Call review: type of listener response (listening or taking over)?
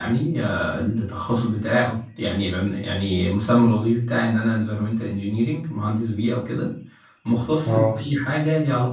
listening